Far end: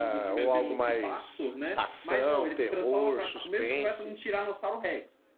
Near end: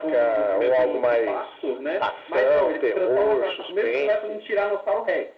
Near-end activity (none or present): none